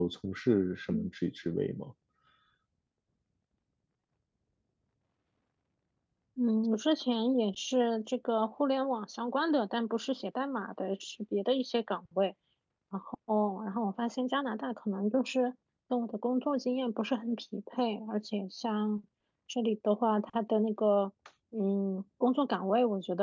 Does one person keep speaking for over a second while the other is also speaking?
No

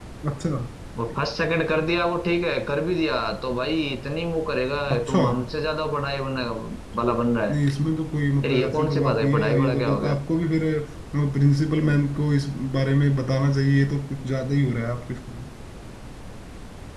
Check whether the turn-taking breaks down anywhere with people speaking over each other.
Yes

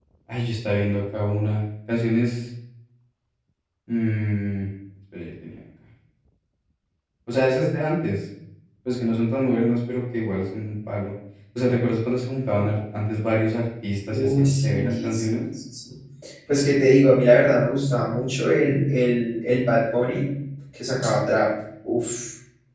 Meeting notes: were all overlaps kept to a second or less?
No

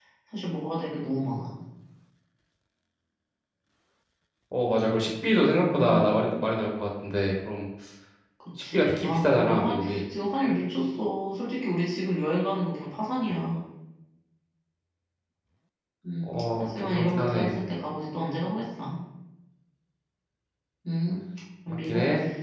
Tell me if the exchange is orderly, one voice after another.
No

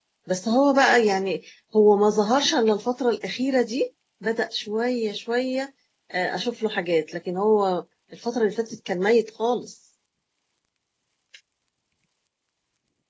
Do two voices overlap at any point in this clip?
No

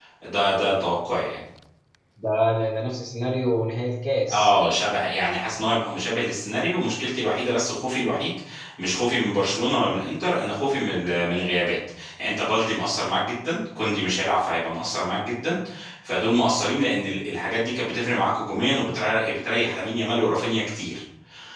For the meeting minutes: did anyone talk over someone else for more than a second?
No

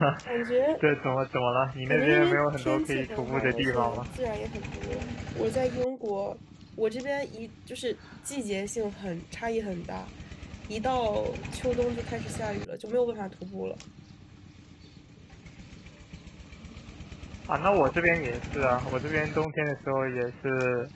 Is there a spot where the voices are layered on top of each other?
Yes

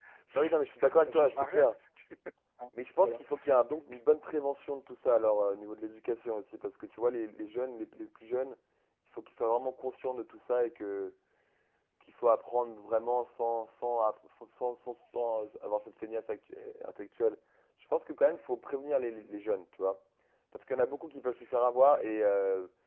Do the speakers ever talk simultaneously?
Yes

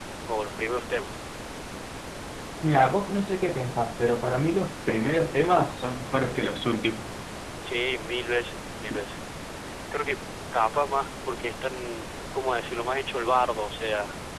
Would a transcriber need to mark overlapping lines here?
No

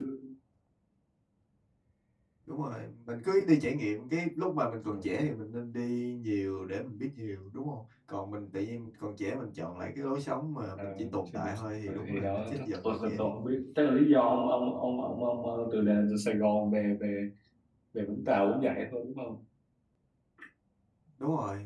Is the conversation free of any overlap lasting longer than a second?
No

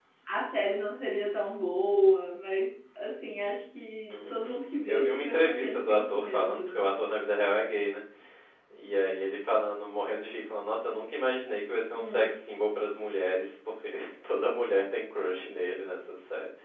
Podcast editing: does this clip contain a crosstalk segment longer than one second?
Yes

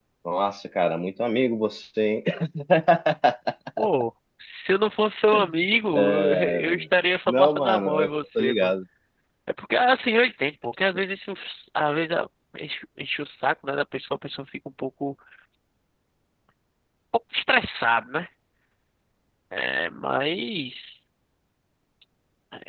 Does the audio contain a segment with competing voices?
Yes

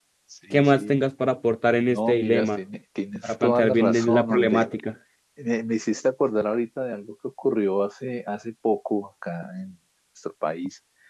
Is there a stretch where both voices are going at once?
Yes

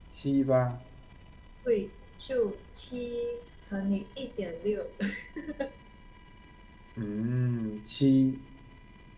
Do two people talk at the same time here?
No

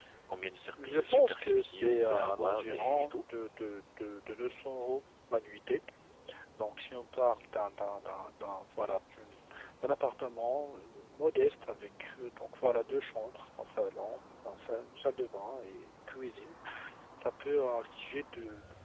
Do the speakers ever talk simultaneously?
Yes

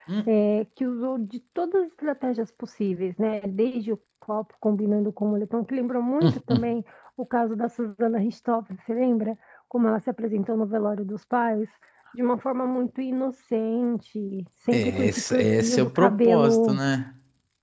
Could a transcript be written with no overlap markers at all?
No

